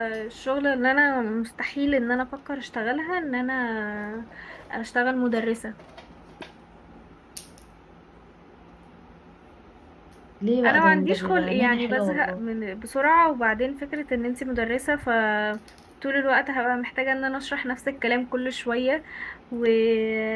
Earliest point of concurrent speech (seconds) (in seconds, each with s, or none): 10.6 s